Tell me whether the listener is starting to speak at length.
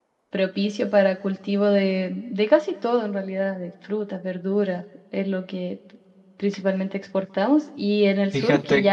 No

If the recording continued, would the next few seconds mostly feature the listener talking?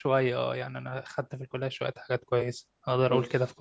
Yes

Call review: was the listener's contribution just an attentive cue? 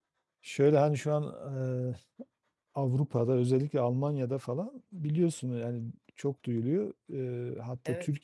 Yes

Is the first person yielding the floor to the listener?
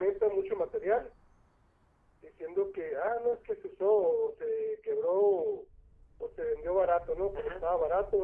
Yes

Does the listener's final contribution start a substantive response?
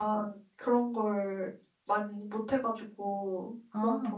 No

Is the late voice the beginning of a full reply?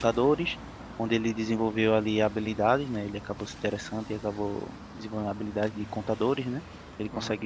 No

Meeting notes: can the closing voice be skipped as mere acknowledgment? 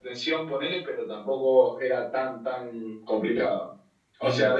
Yes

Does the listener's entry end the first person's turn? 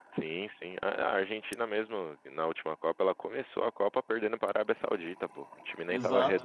Yes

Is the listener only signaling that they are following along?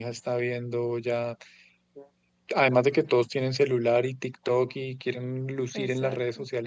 Yes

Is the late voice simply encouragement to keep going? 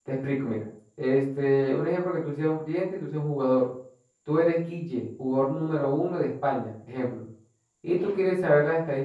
Yes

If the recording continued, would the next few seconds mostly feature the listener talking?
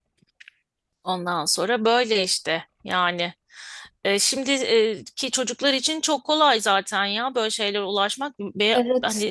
No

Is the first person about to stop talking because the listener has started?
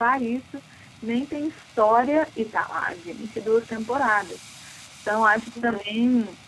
No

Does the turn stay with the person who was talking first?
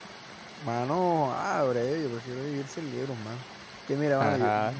Yes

